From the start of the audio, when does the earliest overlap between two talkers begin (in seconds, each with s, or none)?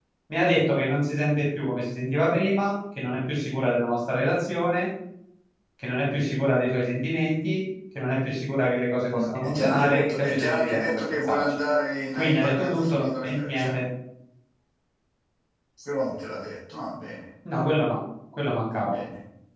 9.1 s